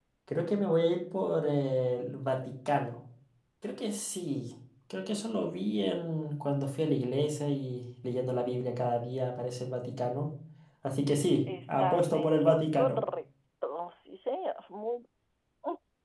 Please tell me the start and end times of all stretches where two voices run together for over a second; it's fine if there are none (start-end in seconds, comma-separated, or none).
11.7-13.0